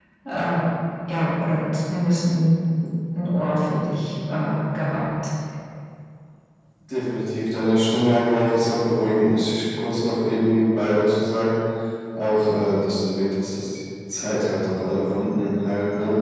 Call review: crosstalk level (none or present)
none